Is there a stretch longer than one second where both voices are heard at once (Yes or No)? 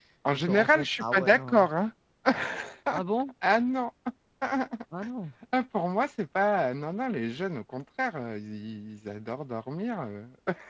Yes